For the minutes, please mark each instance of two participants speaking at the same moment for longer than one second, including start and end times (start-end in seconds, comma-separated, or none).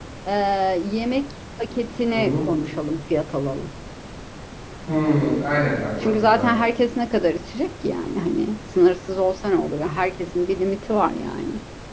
none